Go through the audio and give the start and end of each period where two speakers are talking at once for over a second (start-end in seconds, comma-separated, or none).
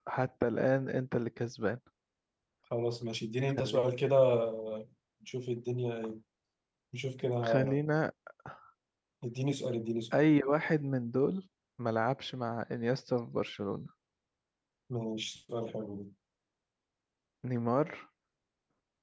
none